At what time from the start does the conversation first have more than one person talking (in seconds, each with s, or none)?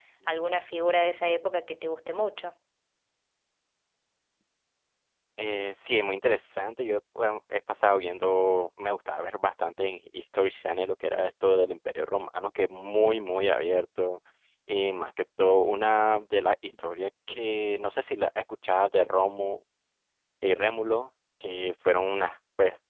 none